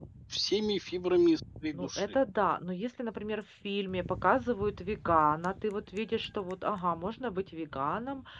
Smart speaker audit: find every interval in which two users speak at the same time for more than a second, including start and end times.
none

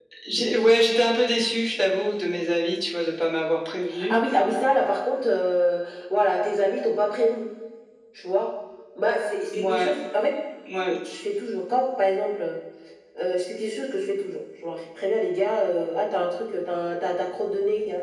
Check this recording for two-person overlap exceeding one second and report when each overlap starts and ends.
none

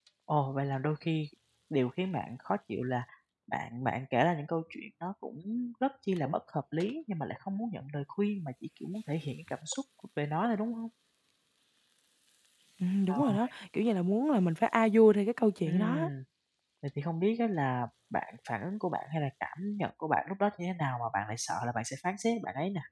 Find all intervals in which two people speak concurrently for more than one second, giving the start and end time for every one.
none

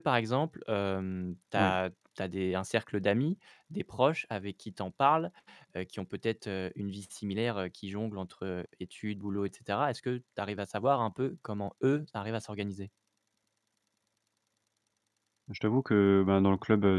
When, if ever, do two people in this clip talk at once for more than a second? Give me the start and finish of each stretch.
none

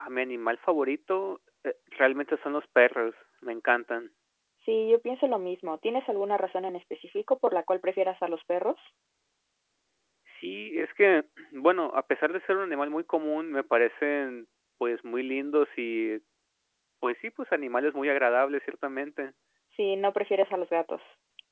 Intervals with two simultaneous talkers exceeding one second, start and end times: none

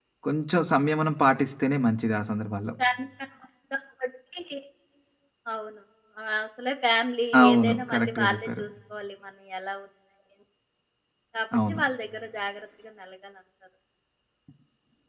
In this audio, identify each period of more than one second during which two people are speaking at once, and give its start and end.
7.4-8.6

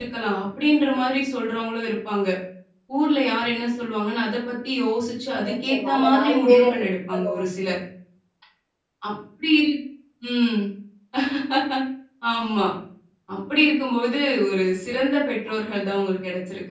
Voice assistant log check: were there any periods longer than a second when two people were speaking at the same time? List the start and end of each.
5.5-6.7

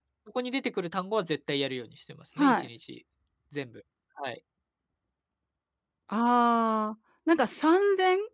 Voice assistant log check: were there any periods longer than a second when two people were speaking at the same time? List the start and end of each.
none

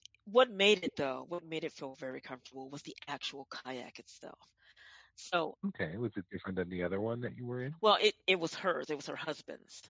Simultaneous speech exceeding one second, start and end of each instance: none

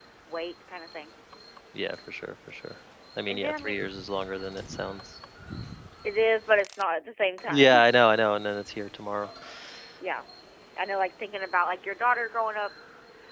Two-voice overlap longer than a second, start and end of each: none

